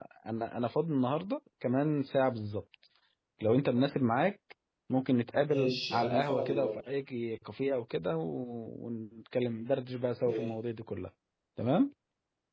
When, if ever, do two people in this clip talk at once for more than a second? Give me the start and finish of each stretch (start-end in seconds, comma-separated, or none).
5.5-6.7